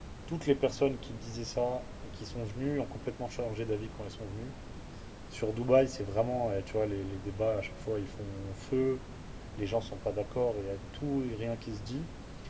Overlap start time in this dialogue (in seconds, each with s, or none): none